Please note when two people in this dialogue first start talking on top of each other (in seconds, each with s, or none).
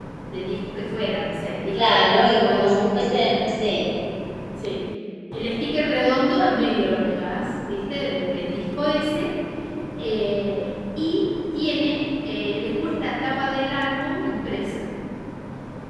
1.7 s